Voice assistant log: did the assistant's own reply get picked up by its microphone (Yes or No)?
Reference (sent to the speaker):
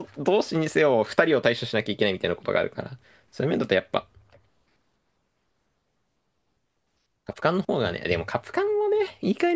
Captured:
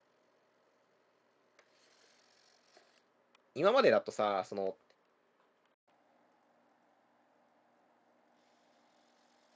No